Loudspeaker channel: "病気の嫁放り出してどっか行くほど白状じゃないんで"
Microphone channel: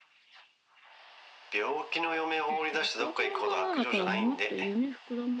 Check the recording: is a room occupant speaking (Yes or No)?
Yes